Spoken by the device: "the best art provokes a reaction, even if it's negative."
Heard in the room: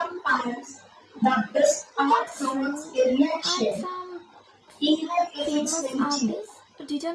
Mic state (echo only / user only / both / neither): both